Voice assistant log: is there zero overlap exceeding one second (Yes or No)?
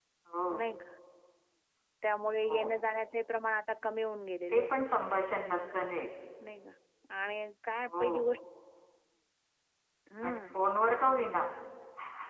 Yes